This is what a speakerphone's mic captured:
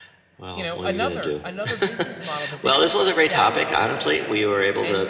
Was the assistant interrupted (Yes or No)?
Yes